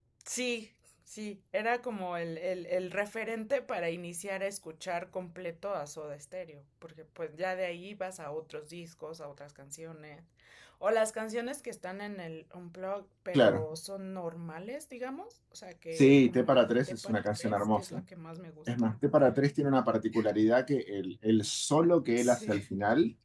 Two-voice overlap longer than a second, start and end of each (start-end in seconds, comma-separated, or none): 15.9-18.0